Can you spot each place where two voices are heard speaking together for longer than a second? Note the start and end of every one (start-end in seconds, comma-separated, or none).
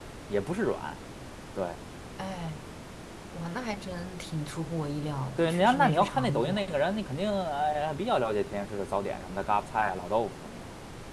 5.4-6.6